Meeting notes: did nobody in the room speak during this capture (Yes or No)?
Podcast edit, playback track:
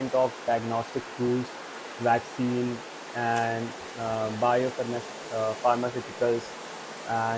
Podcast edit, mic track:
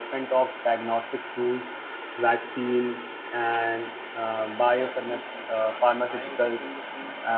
No